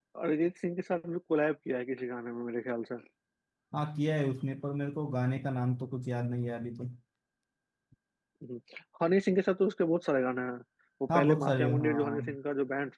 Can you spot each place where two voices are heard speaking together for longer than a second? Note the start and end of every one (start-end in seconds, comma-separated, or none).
11.2-12.4